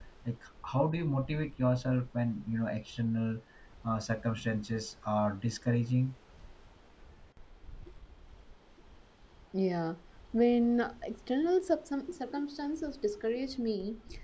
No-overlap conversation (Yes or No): Yes